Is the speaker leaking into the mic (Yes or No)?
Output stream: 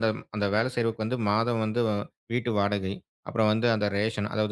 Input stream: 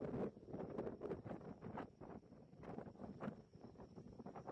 No